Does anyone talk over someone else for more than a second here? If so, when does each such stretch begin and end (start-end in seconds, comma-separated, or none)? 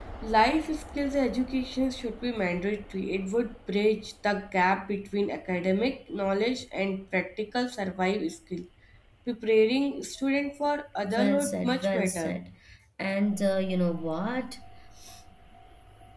11.2-12.4